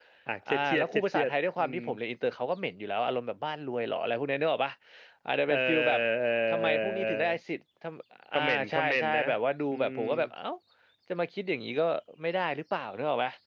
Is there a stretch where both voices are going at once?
Yes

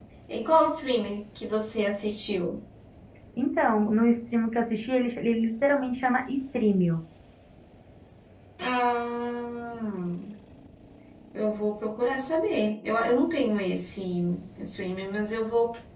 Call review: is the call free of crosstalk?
Yes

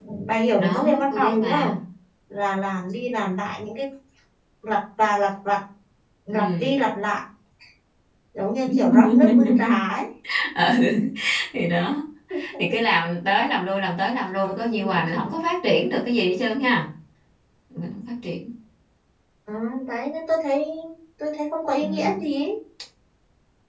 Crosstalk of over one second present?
Yes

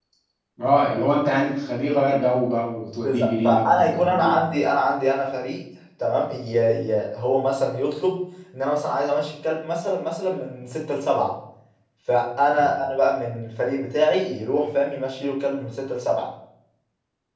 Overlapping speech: Yes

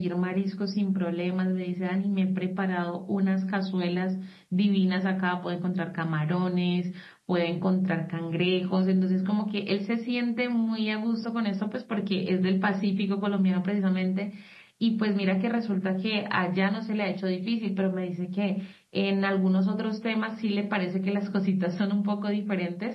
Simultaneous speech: No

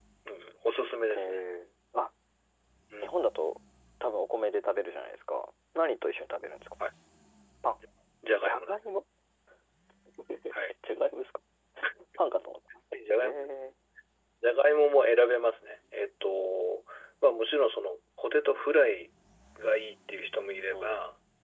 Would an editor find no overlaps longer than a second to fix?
Yes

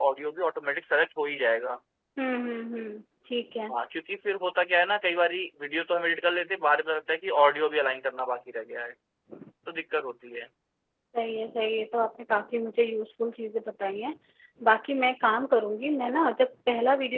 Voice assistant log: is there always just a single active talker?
Yes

